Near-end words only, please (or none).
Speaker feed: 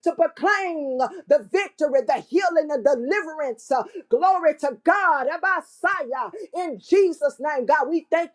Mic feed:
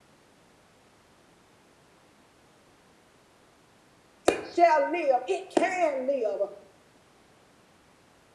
it shall live, it can live.